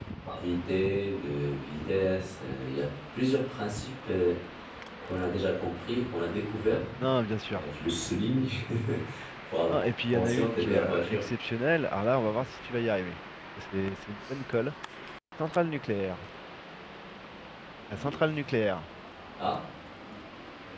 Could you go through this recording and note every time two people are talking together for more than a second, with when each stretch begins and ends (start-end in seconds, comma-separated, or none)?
9.7-11.3